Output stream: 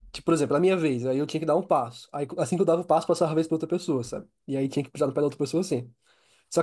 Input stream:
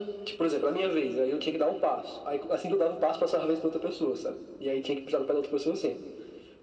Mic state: echo only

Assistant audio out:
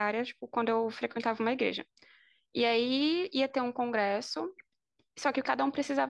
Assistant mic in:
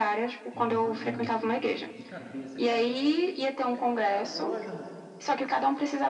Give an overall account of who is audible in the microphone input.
both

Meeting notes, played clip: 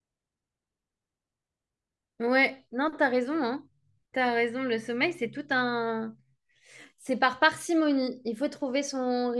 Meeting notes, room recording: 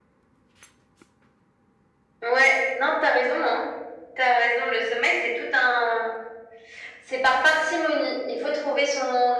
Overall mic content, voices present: echo only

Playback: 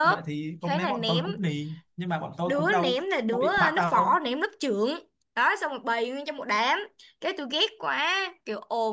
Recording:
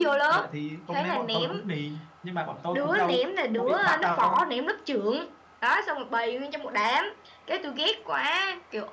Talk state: echo only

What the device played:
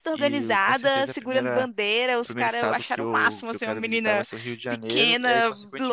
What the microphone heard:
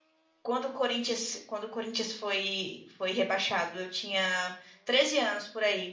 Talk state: user only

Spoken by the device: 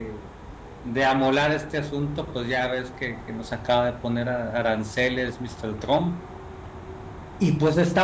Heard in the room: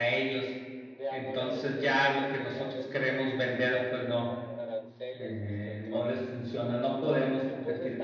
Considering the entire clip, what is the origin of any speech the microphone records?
both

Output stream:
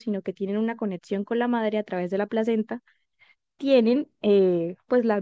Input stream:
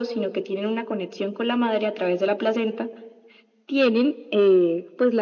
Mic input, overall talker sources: echo only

